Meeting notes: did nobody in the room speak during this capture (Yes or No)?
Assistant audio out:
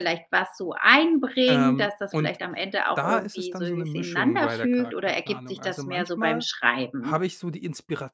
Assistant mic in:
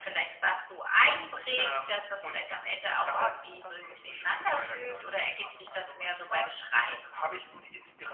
Yes